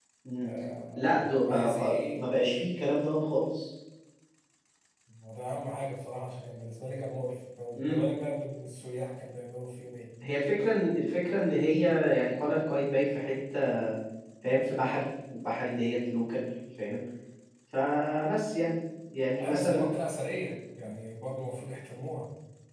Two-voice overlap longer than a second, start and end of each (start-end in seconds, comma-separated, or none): 0.9-2.2